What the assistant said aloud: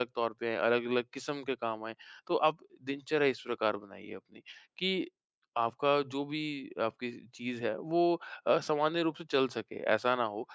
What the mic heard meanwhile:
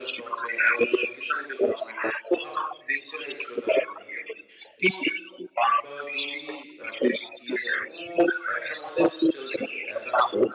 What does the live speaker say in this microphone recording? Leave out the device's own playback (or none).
none